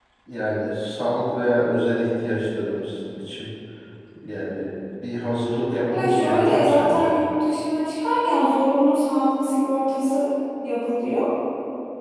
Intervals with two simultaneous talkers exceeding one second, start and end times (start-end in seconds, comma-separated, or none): 5.9-7.1